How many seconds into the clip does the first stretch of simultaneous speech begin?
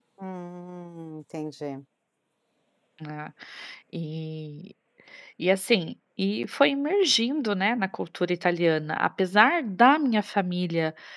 none

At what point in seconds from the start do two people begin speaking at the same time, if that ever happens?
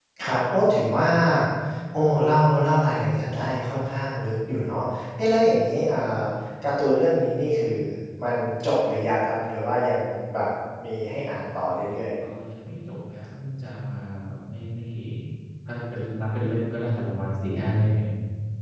none

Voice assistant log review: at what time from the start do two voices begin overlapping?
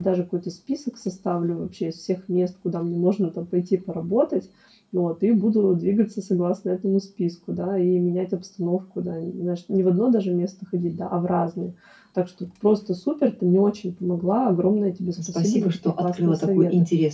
15.2 s

